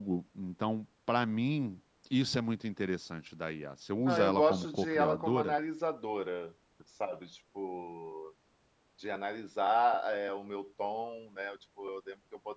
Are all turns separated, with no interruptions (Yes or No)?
No